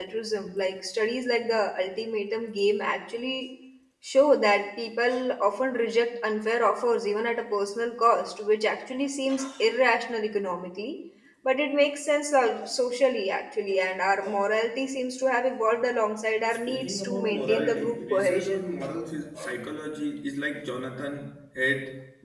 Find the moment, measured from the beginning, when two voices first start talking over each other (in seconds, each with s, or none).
16.7 s